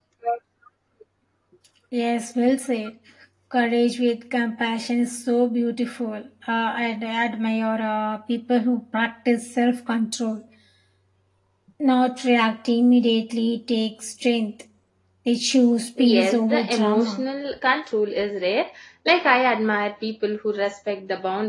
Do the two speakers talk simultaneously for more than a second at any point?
Yes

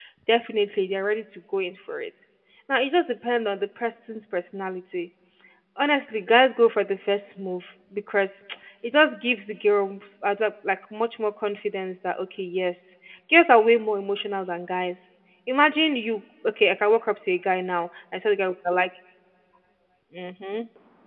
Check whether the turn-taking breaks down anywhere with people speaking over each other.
No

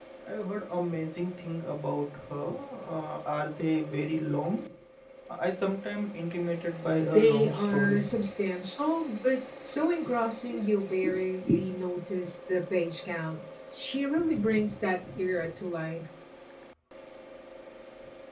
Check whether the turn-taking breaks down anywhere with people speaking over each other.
Yes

